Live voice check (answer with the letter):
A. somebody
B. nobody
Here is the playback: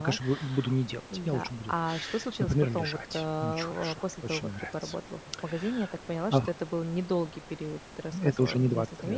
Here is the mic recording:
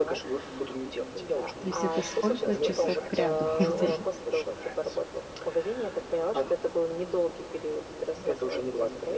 A